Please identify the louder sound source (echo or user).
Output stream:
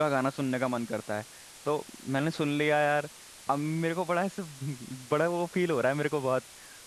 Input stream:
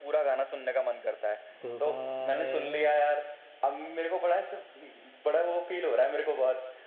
echo